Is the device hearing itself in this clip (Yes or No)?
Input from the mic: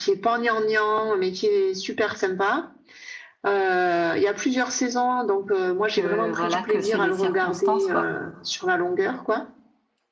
Yes